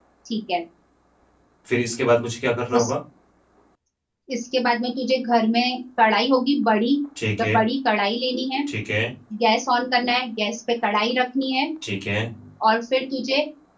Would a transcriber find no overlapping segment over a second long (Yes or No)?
Yes